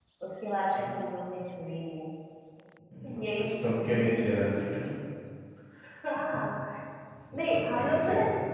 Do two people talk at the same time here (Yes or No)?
Yes